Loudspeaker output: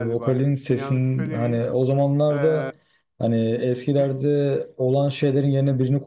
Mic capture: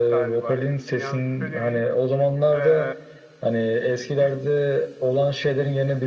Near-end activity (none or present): none